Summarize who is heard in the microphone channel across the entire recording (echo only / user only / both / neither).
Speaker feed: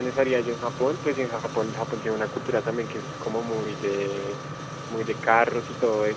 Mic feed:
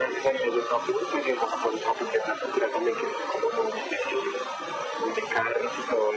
echo only